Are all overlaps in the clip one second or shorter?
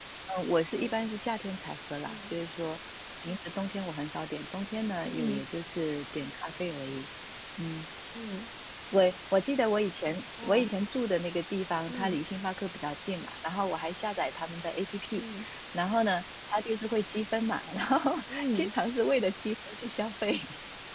Yes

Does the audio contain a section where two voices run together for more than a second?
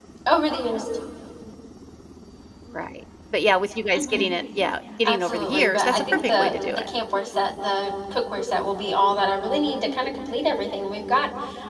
Yes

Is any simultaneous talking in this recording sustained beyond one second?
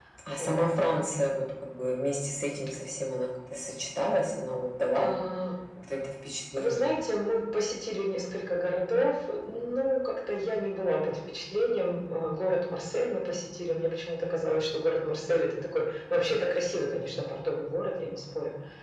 No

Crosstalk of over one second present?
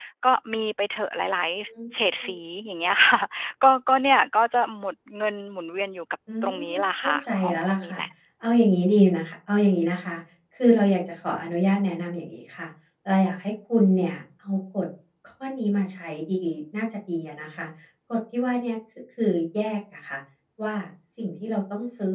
Yes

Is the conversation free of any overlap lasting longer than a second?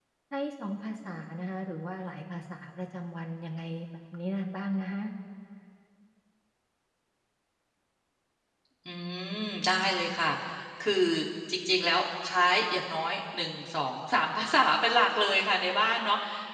Yes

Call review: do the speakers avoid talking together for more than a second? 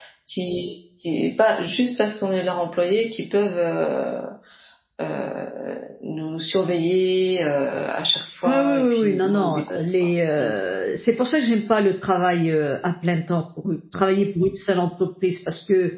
No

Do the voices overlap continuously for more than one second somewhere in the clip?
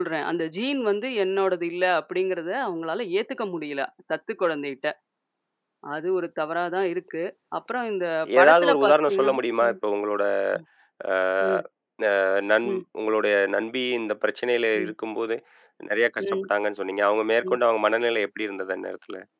Yes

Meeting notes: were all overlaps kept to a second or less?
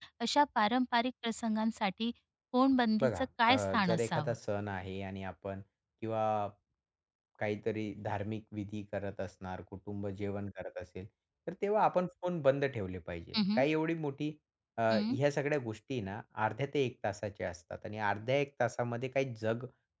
No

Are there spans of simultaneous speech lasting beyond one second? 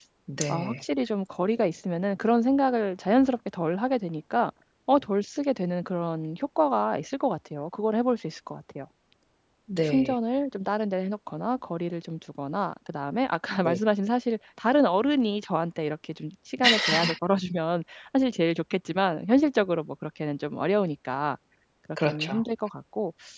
No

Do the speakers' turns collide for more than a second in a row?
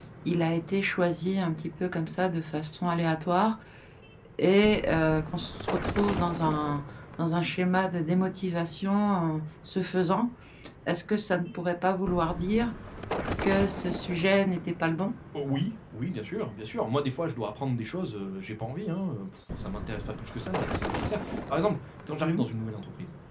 No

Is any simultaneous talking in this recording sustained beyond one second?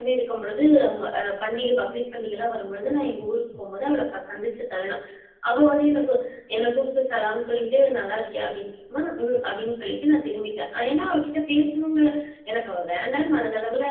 No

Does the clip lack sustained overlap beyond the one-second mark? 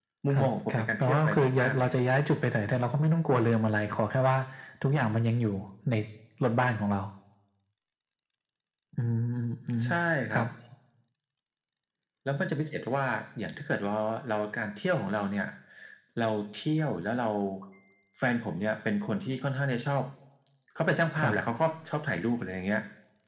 No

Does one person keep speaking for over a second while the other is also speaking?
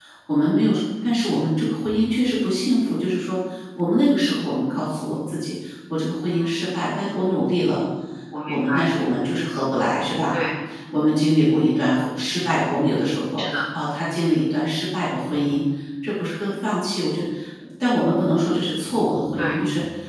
No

